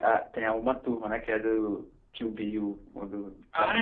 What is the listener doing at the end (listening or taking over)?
taking over